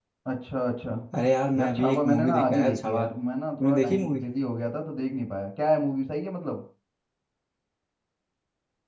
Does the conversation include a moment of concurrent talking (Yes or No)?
Yes